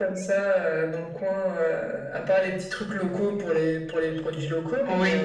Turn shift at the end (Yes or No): Yes